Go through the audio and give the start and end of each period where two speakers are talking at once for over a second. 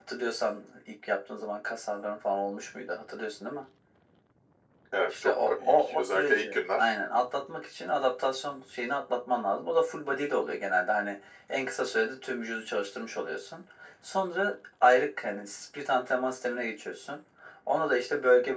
5.1-6.9

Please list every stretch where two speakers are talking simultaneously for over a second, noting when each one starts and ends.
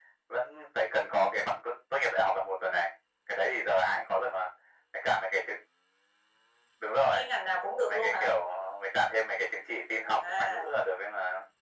none

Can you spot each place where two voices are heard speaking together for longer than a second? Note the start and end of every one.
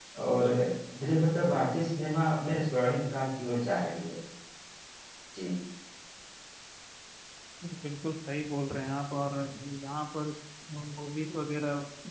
none

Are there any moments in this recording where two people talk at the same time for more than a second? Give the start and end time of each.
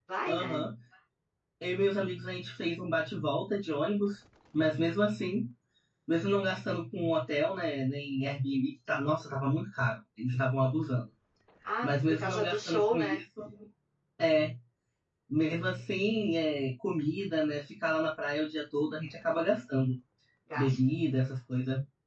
11.8-13.2

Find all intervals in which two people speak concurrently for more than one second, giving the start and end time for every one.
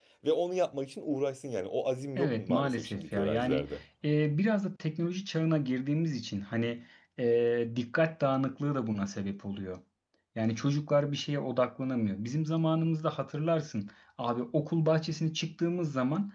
2.2-3.6

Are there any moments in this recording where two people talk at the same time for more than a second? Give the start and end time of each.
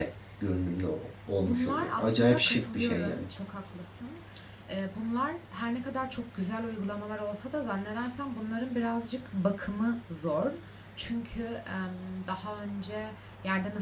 1.4-3.3

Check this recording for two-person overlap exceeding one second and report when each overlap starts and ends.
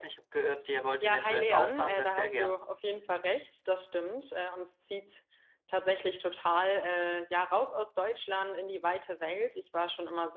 1.0-2.6

